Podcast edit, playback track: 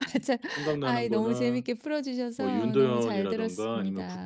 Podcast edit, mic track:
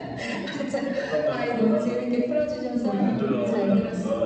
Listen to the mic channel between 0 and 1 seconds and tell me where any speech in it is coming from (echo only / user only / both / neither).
echo only